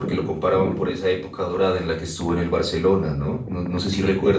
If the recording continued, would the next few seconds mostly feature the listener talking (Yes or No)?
No